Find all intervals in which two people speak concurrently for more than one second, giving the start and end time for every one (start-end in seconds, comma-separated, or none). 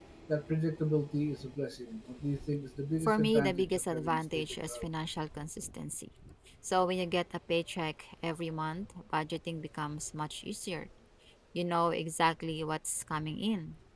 3.0-4.9